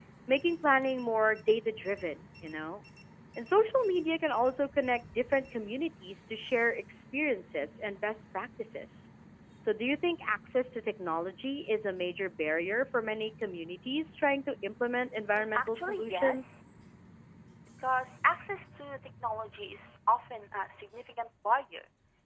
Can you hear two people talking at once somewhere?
Yes, from 15.3 s

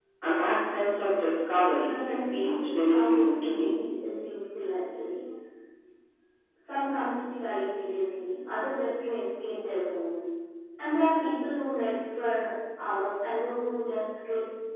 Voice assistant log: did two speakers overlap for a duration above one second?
Yes, from 1.8 s

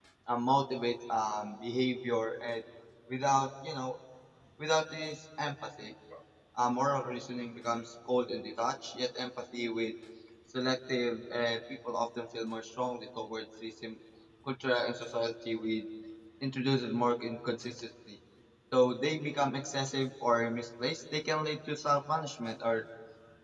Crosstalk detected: No

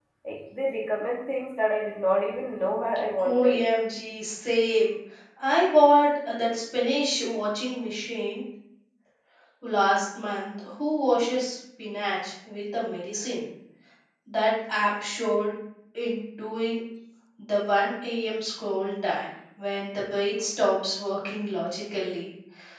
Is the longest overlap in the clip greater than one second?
No

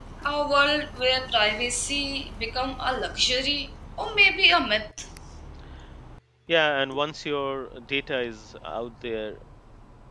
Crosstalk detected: No

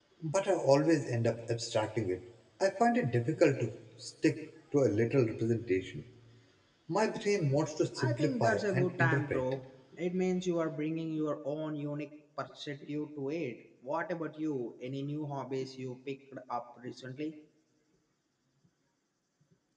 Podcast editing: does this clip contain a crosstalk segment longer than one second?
Yes, from 8.0 s

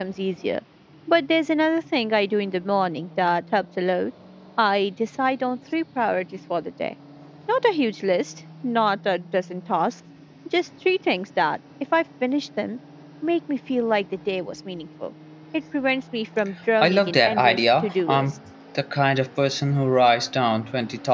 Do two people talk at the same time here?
Yes, from 16.8 s

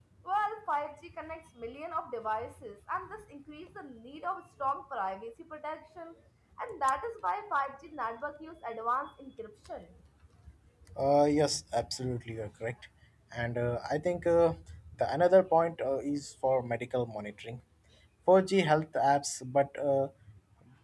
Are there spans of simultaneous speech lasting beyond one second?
No

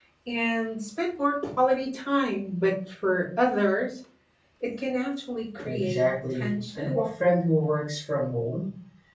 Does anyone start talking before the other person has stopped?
Yes, from 5.6 s

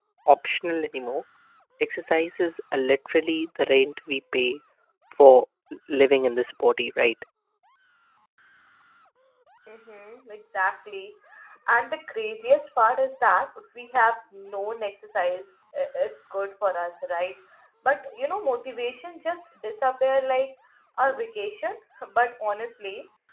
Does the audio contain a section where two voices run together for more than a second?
No

